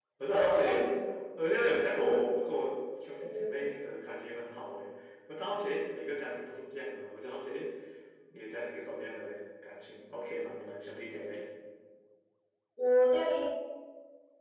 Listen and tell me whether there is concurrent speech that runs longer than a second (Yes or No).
No